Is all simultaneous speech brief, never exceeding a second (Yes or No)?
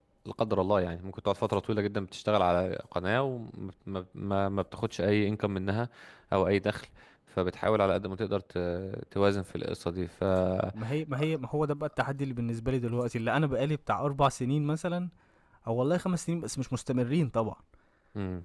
Yes